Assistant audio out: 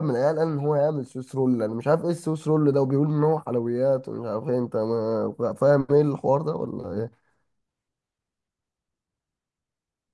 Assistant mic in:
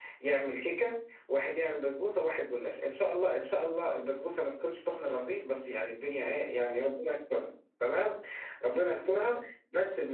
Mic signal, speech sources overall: user only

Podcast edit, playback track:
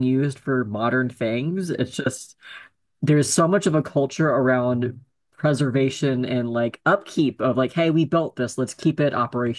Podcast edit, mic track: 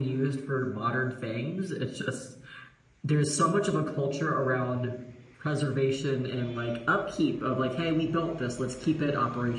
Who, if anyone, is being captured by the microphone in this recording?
echo only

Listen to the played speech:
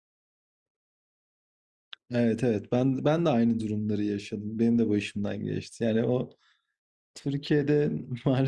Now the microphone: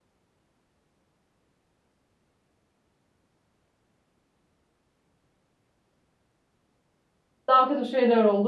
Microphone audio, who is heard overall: user only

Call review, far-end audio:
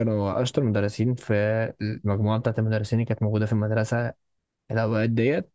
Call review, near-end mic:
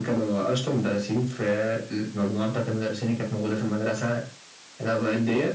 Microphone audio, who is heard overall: echo only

